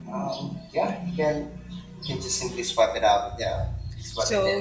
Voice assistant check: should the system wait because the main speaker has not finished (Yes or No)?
No